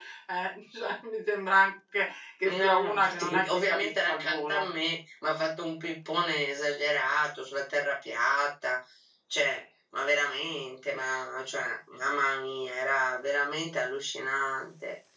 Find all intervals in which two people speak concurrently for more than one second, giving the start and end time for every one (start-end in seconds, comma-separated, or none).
2.5-4.7